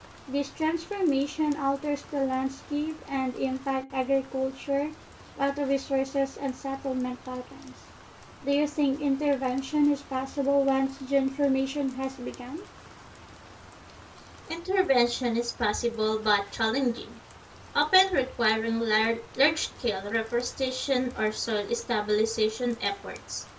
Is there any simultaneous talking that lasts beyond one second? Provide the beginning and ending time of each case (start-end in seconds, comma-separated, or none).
none